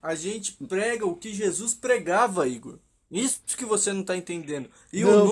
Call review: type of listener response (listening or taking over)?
listening